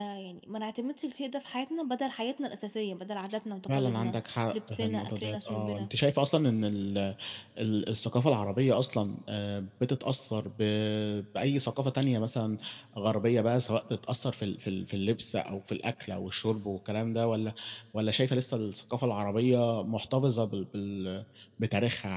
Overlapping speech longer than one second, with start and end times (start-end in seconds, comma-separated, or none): 4.5-5.9